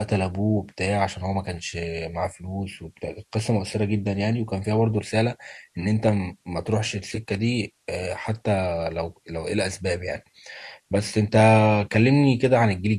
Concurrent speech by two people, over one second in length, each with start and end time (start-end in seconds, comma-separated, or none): none